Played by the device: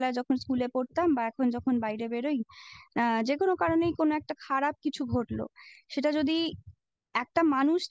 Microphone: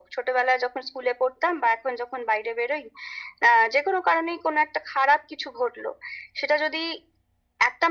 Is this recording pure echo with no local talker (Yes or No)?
Yes